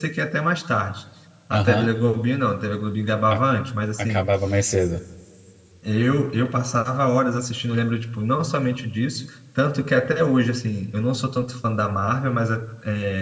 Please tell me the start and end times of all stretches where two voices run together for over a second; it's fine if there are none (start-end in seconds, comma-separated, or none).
none